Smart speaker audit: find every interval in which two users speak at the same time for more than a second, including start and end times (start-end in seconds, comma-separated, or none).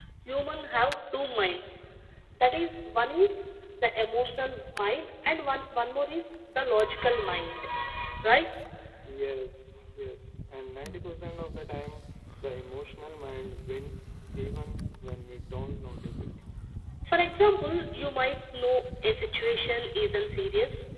none